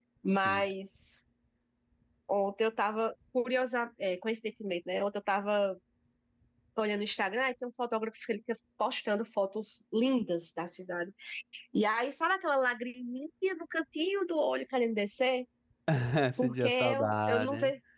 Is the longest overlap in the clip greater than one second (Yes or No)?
Yes